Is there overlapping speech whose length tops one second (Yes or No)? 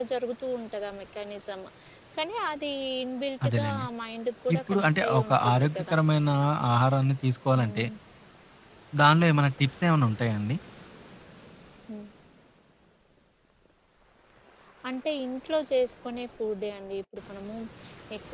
Yes